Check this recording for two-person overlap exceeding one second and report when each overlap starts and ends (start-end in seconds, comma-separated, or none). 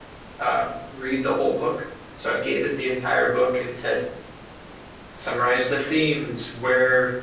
none